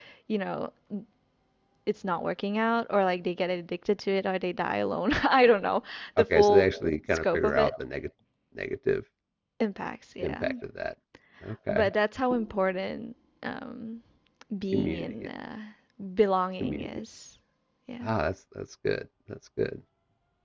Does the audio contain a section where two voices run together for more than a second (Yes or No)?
Yes